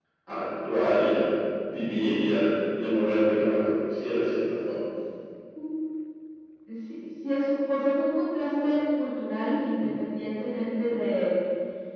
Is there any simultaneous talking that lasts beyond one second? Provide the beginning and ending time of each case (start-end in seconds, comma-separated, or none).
none